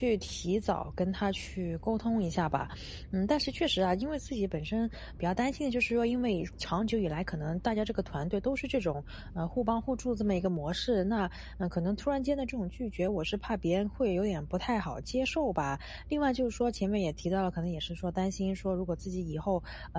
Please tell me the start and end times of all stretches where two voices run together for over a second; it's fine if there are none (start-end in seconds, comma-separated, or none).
none